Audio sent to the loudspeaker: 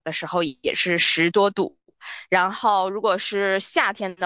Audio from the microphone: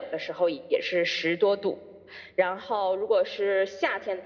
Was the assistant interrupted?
No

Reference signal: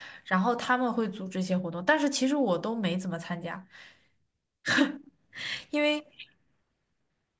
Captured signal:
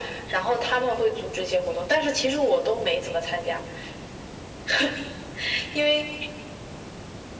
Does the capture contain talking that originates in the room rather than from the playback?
No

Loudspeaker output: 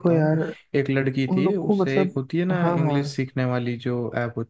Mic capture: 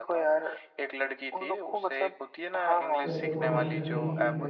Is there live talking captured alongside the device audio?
Yes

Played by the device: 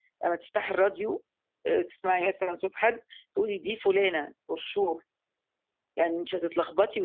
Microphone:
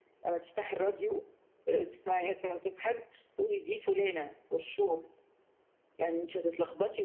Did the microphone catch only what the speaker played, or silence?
Yes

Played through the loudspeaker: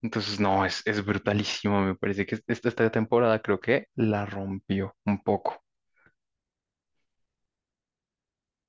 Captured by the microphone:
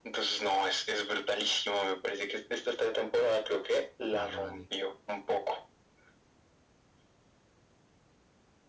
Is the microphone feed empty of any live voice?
No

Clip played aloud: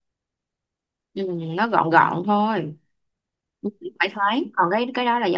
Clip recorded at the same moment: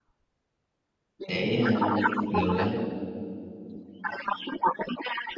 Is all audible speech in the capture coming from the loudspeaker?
No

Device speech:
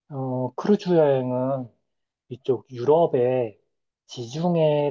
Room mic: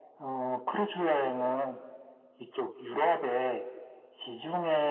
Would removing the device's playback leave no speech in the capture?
Yes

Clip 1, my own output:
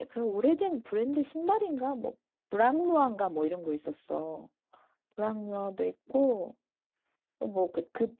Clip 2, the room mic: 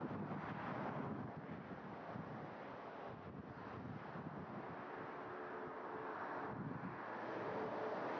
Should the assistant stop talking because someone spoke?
No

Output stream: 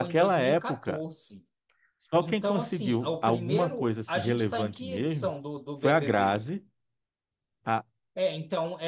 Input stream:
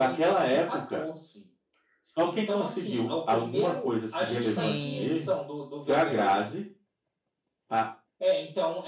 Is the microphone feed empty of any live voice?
No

